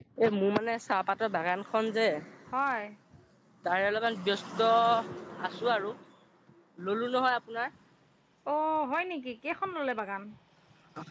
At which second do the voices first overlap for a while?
none

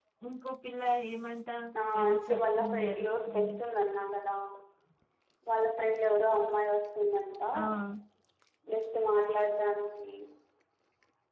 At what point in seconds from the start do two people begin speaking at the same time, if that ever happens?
2.1 s

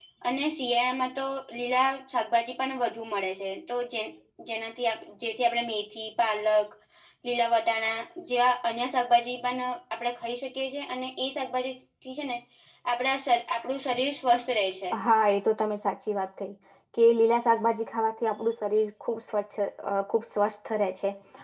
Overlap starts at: none

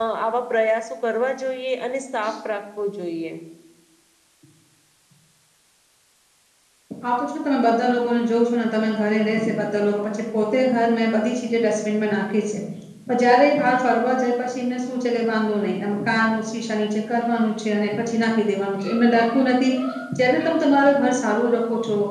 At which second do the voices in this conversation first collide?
none

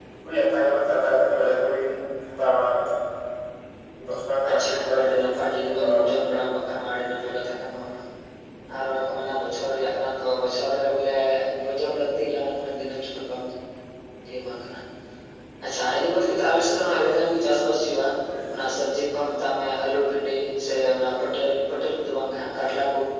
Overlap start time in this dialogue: 4.5 s

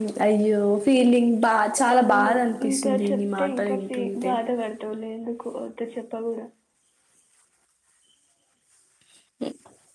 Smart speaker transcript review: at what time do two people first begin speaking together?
1.9 s

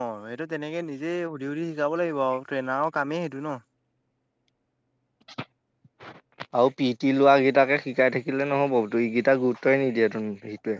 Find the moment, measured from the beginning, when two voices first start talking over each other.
none

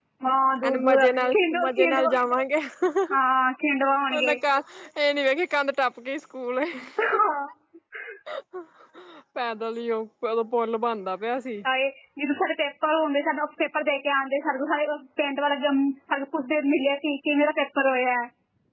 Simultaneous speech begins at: 0.7 s

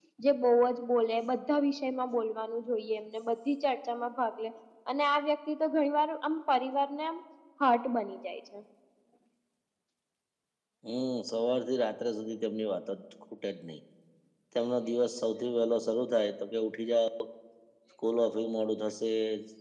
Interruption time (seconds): none

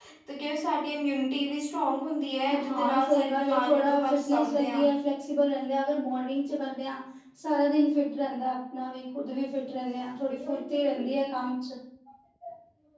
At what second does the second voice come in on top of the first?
2.5 s

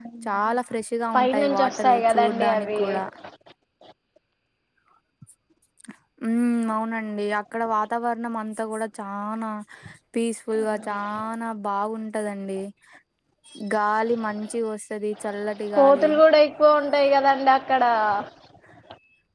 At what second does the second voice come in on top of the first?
1.1 s

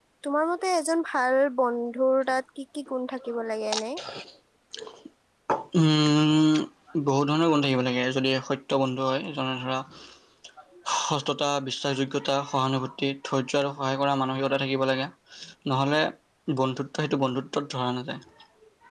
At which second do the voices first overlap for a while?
none

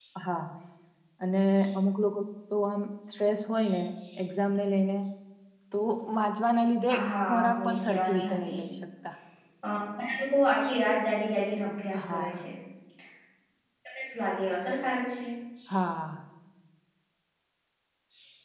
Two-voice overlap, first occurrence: 7.3 s

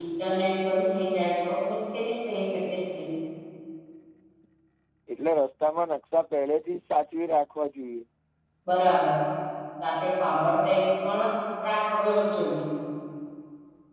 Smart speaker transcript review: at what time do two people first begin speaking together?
none

